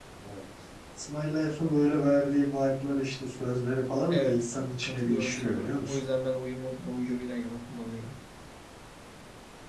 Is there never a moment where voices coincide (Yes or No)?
No